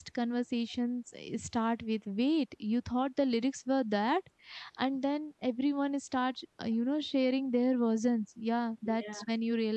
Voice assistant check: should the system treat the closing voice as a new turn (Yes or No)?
No